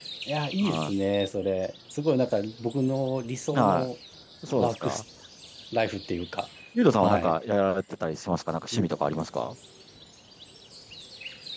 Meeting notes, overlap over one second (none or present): none